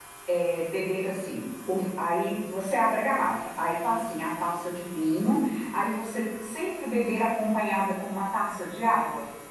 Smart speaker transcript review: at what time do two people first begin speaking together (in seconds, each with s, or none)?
none